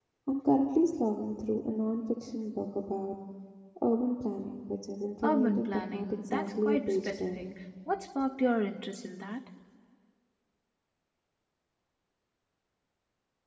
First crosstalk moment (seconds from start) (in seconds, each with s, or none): 5.2 s